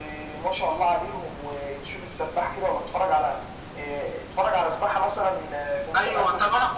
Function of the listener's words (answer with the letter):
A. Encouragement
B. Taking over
B